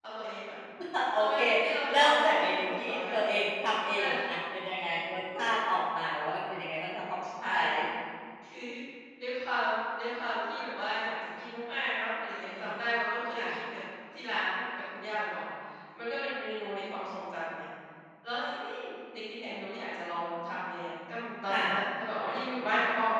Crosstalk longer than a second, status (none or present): present